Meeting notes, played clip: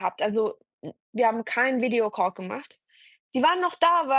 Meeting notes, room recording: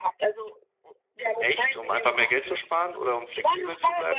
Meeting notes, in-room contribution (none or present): present